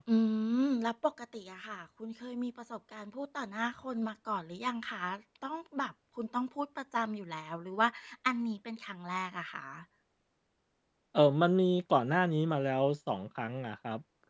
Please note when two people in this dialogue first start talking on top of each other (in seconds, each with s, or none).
none